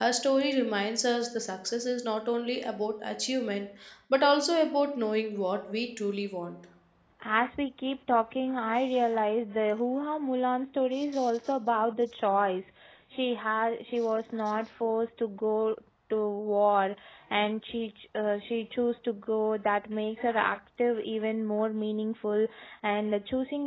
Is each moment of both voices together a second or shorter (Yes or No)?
Yes